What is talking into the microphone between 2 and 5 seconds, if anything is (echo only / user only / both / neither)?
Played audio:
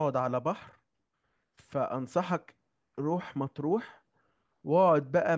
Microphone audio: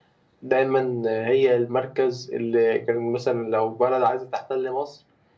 user only